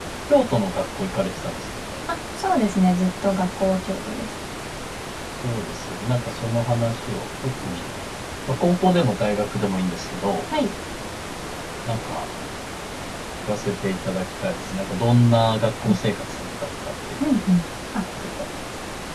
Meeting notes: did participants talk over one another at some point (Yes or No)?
No